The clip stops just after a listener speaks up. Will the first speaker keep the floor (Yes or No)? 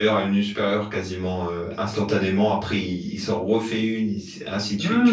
No